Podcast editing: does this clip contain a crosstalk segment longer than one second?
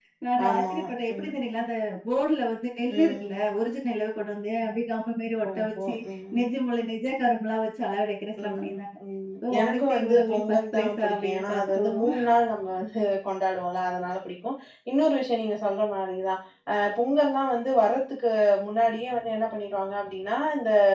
Yes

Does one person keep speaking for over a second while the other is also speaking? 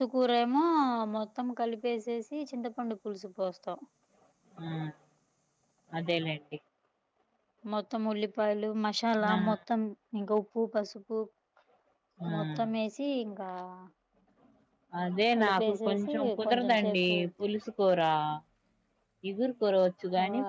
Yes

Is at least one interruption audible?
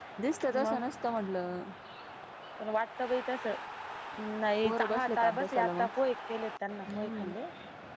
Yes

